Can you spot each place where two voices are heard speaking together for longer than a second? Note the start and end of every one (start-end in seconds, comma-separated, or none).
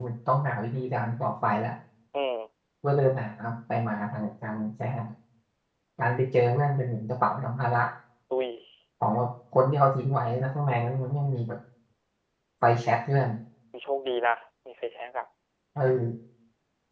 none